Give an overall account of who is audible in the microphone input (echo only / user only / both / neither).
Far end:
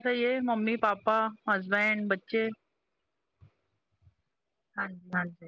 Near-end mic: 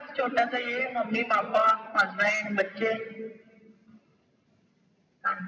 echo only